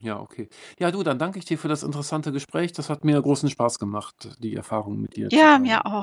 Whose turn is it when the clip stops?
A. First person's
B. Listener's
B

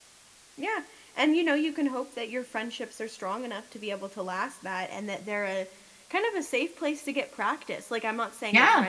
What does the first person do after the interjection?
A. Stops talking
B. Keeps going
B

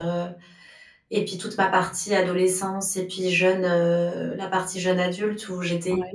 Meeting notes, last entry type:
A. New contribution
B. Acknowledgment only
B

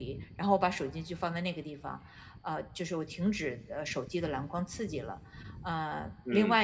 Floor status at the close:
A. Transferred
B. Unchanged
B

